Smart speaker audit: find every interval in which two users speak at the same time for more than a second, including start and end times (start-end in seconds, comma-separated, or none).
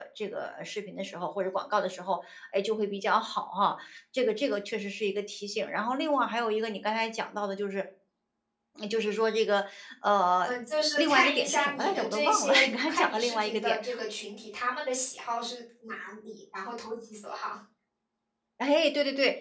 11.0-13.8